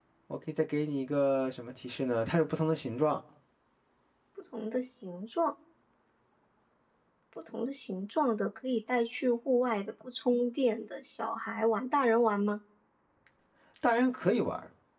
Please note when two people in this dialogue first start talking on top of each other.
none

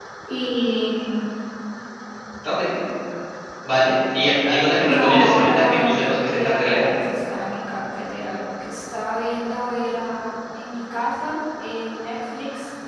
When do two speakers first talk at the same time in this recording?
4.9 s

